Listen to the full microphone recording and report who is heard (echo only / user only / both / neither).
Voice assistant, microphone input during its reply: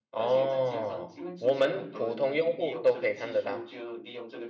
both